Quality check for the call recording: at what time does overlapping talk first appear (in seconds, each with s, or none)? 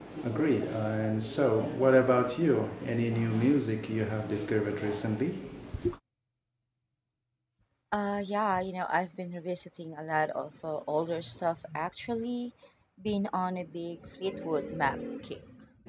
none